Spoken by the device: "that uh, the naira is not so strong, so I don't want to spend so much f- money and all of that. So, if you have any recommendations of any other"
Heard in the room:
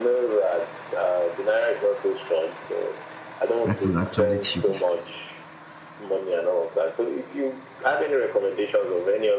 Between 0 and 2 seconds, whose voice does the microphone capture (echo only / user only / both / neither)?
echo only